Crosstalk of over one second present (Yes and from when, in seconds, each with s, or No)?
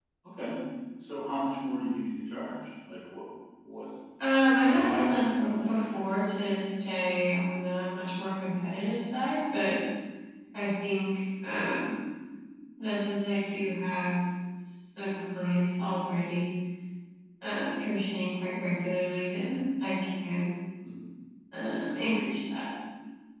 Yes, from 4.7 s